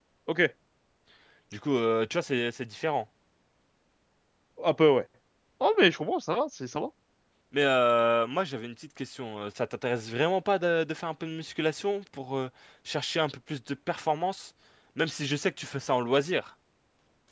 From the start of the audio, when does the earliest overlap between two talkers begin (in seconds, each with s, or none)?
none